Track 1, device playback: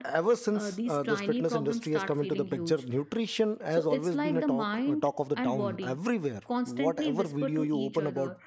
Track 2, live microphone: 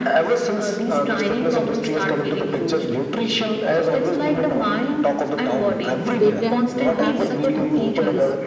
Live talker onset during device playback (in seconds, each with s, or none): 6.2 s